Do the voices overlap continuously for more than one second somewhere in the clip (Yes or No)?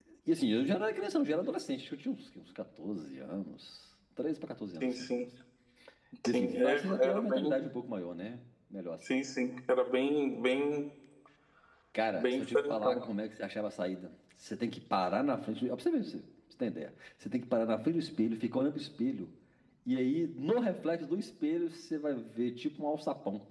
Yes